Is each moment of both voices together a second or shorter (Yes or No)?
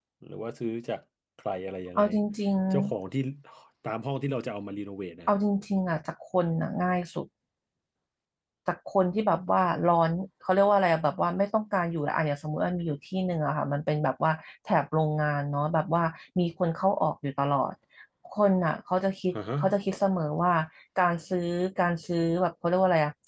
Yes